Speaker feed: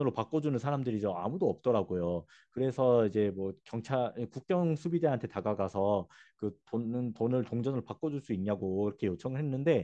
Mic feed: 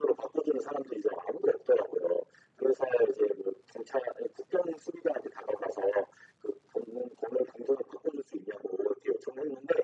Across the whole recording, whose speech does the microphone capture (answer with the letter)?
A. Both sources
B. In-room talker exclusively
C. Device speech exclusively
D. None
C